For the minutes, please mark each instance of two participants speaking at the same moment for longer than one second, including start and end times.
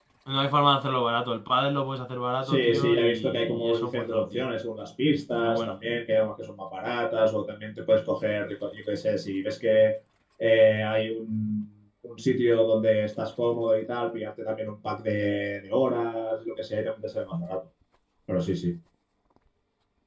2.4-4.4

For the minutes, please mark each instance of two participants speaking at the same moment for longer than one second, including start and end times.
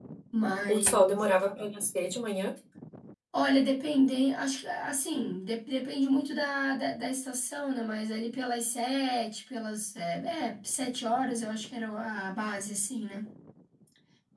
none

